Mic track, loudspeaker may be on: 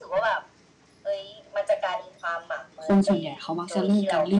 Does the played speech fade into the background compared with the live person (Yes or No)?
Yes